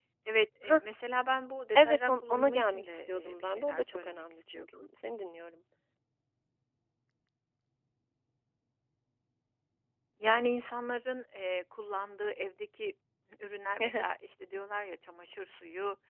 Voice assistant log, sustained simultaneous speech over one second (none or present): present